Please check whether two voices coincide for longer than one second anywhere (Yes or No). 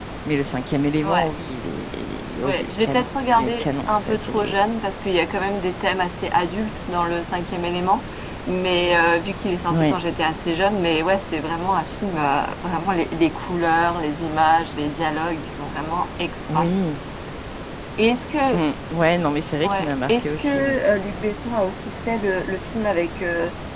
Yes